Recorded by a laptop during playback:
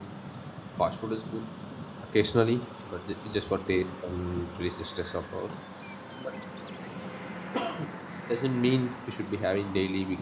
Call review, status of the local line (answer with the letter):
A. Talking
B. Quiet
A